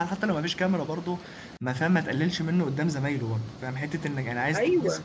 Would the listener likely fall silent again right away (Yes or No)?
Yes